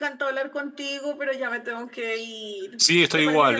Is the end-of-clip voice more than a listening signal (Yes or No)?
Yes